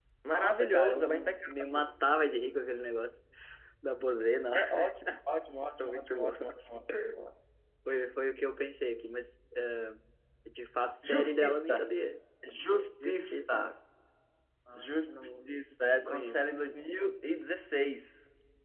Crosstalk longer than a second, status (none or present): present